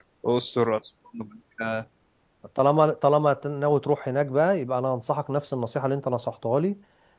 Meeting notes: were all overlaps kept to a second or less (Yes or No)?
Yes